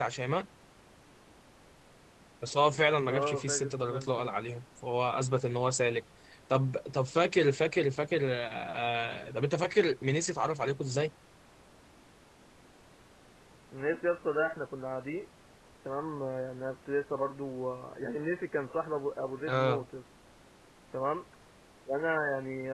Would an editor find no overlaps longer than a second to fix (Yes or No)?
No